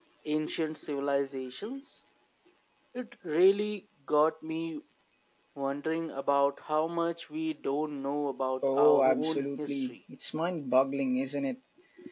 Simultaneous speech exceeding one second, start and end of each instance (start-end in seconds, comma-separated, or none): 8.7-10.0